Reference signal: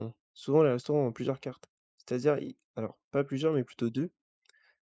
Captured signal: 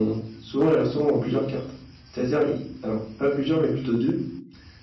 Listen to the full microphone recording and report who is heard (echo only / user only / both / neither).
echo only